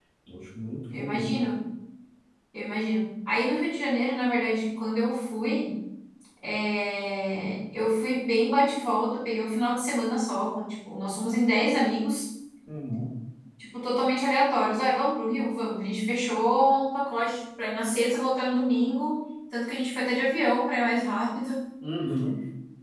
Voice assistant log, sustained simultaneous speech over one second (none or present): none